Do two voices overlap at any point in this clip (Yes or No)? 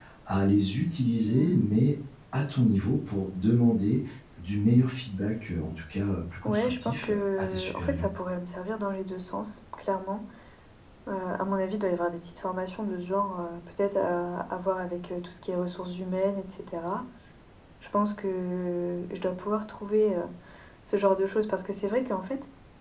Yes